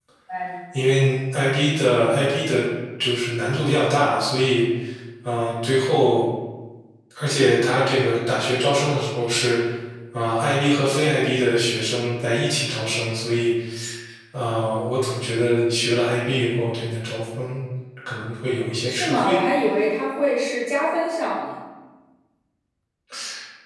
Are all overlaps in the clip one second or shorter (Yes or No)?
Yes